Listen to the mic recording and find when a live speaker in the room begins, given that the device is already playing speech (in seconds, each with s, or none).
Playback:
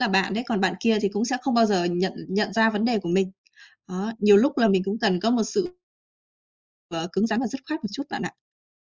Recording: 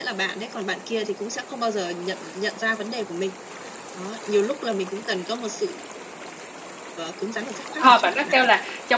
7.8 s